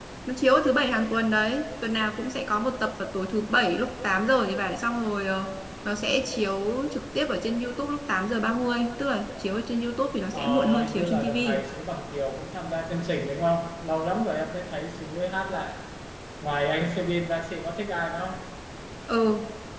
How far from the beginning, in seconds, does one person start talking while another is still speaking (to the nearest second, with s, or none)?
10 s